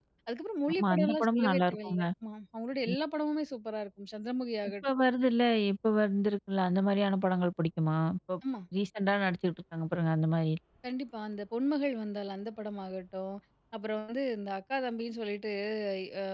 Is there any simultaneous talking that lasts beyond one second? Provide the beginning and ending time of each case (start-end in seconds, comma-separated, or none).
0.7-2.0